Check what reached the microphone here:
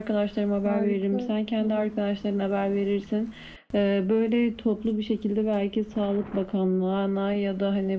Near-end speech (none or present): present